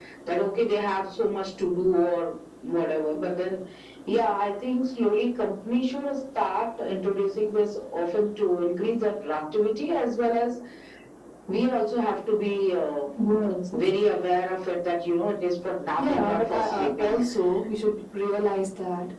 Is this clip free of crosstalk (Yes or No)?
No